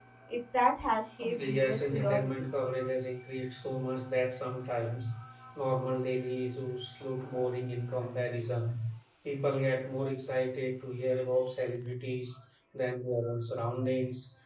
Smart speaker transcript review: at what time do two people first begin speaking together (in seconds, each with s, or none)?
1.2 s